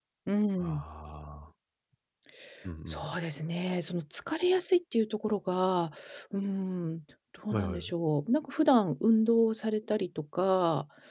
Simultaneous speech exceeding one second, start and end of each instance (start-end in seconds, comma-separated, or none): none